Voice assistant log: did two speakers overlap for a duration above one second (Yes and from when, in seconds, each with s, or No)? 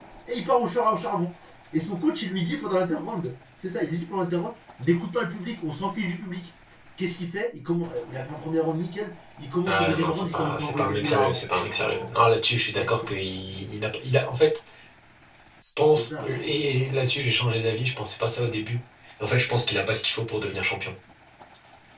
Yes, from 9.7 s